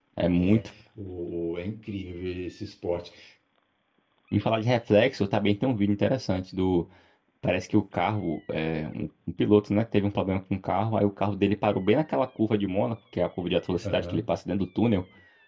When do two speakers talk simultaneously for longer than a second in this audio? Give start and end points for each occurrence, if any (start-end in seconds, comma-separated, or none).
none